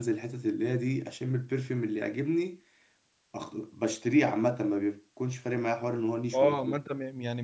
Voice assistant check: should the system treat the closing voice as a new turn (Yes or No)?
Yes